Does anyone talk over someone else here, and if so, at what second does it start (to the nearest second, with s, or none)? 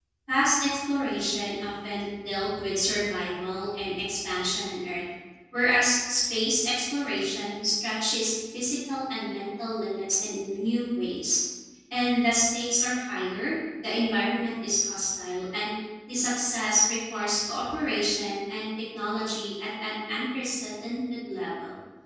none